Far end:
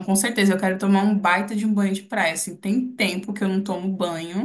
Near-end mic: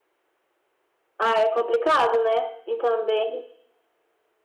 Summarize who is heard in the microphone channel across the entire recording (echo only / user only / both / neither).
user only